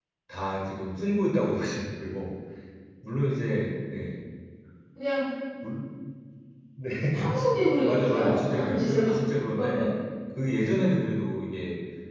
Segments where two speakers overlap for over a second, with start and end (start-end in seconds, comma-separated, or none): 7.9-9.1